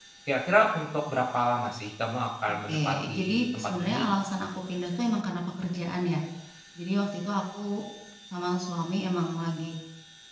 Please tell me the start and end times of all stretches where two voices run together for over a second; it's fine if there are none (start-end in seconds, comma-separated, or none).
2.5-4.0